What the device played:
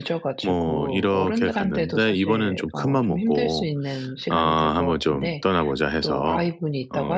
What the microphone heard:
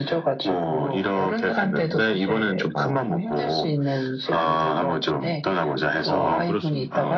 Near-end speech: present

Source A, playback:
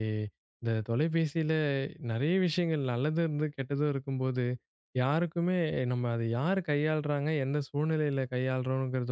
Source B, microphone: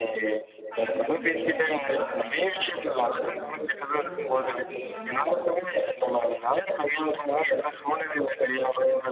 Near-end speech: present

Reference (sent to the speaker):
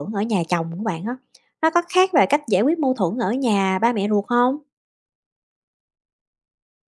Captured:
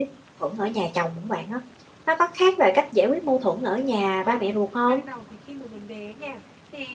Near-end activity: present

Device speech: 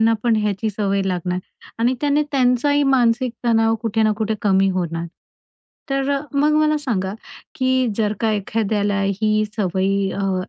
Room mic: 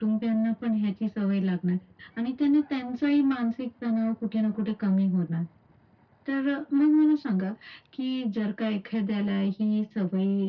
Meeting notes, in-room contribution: none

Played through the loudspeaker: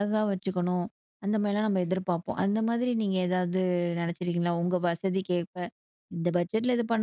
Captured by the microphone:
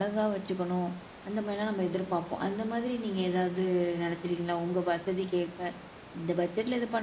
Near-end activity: none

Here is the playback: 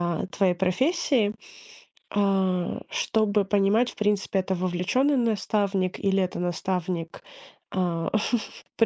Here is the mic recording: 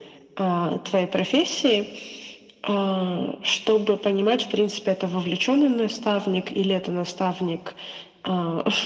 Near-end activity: none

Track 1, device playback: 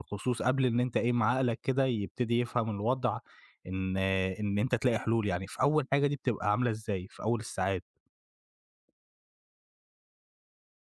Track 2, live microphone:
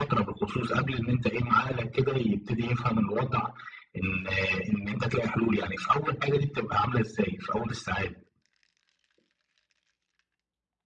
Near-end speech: none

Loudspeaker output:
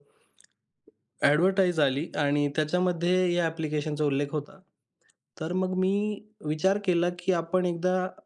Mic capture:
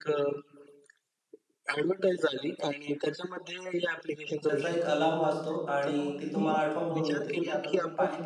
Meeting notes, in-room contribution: present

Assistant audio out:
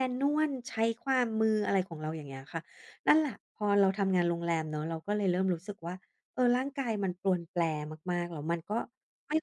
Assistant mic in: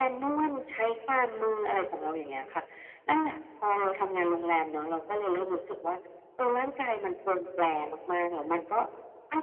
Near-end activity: none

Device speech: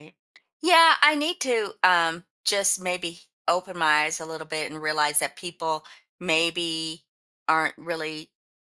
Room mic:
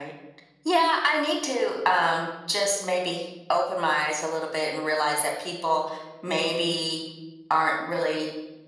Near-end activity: none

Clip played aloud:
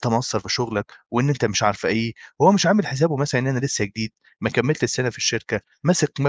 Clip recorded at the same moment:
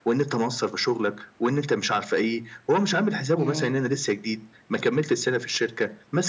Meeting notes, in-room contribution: present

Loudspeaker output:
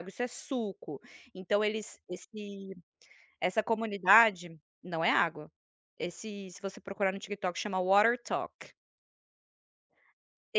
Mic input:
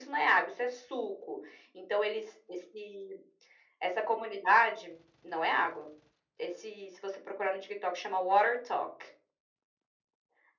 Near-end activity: none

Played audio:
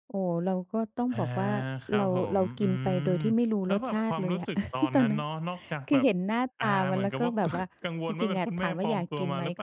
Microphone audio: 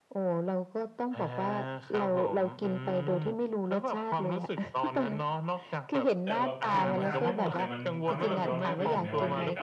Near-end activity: present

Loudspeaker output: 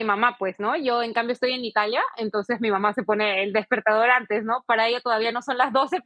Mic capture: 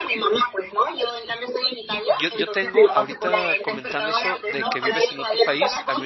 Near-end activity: present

